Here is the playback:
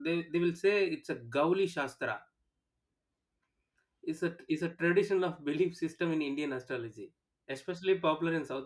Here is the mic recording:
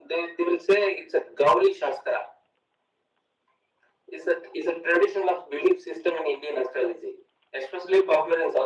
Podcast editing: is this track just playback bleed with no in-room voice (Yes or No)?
Yes